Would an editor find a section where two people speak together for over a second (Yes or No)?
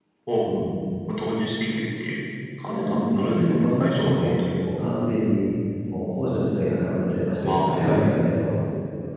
Yes